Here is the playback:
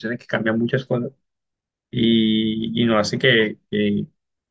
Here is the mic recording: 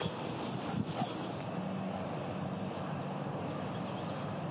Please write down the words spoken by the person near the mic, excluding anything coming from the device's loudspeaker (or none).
none